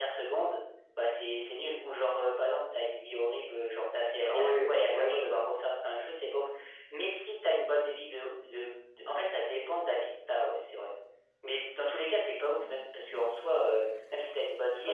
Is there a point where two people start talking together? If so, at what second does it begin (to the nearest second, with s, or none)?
4 s